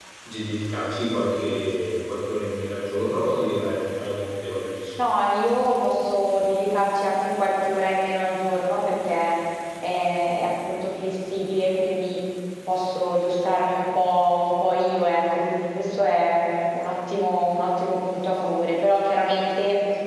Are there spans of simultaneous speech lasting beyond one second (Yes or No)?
No